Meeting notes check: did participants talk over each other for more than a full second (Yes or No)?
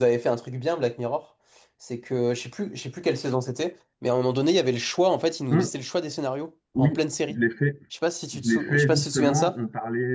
Yes